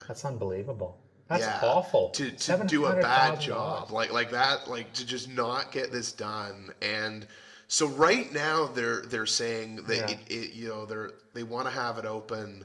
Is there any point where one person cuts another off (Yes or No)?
Yes